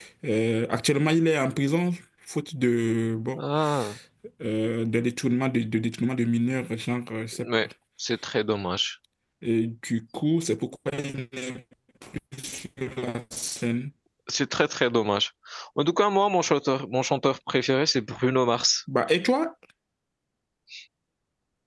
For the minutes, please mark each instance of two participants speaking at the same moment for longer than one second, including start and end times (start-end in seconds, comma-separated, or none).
none